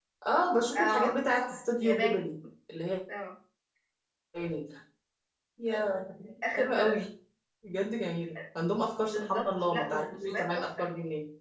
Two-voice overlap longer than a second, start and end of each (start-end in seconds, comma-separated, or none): 9.1-10.9